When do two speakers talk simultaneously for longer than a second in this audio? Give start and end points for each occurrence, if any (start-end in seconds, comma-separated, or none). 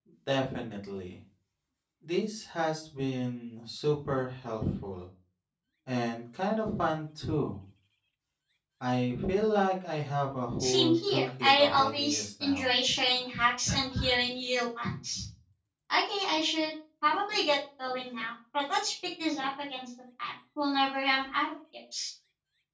10.6-12.7